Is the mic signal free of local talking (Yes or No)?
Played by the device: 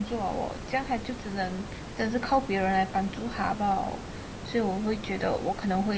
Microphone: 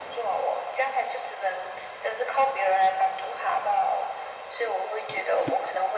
Yes